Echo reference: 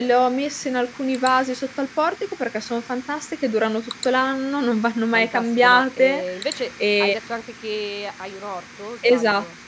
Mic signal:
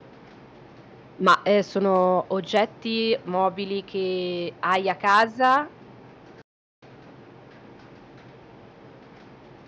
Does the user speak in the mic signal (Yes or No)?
Yes